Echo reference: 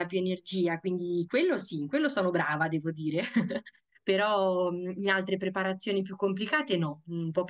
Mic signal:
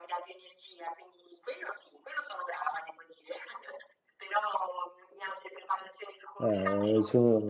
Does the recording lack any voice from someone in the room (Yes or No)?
No